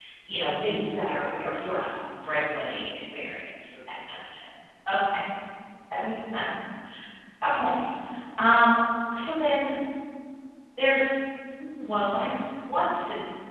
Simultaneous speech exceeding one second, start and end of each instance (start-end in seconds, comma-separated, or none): 0.6-1.8